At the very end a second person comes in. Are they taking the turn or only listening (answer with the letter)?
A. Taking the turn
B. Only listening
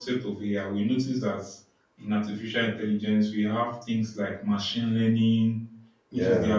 B